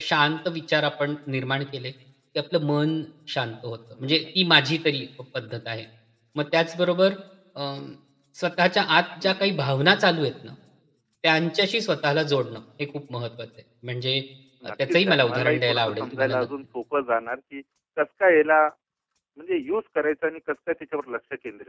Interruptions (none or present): present